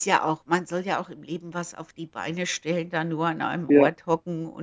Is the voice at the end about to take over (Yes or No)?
No